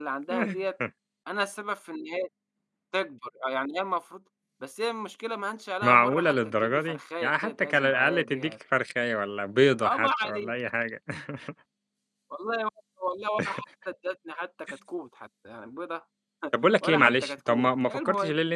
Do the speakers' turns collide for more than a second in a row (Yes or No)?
Yes